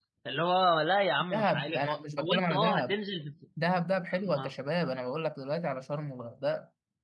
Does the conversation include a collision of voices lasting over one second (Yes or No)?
Yes